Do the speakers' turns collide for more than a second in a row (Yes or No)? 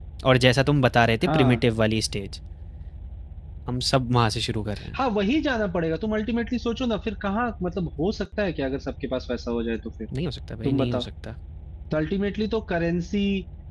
No